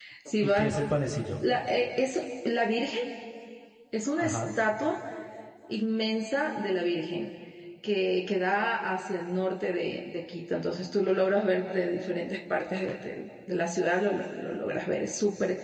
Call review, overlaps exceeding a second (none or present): none